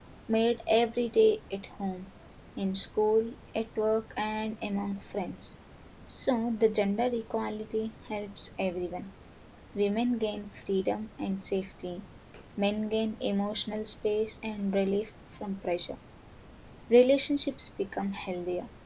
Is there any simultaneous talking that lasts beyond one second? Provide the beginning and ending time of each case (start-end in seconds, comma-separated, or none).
none